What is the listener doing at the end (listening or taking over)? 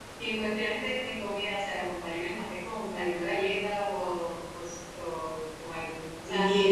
listening